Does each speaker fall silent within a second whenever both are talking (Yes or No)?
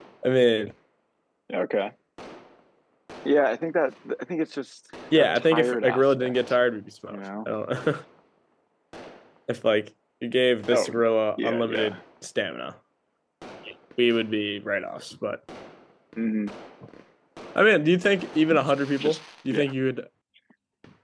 No